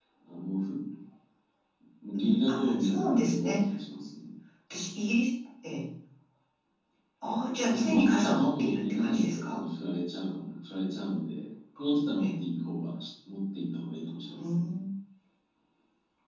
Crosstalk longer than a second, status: present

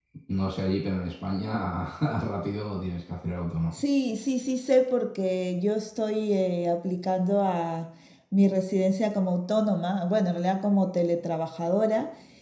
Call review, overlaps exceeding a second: none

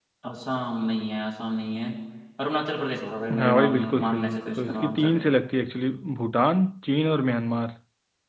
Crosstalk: present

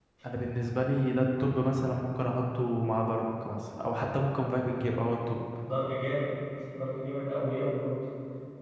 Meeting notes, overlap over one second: none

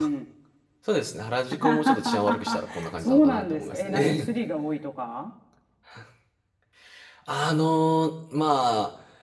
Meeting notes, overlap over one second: present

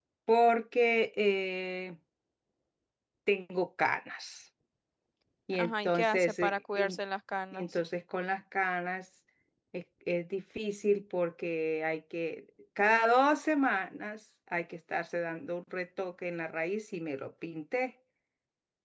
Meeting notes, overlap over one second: present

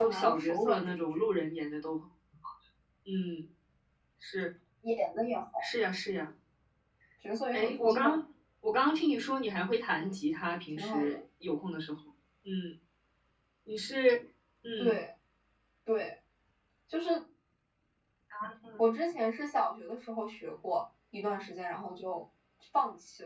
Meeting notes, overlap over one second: present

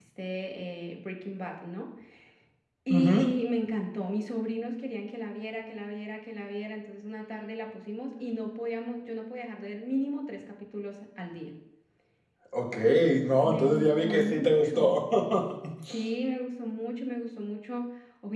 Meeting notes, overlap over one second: present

